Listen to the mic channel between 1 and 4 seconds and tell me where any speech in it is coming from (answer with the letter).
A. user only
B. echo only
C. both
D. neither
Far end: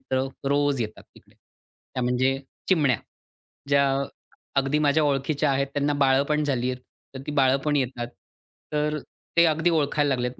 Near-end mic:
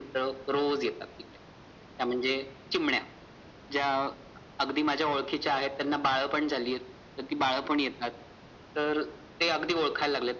B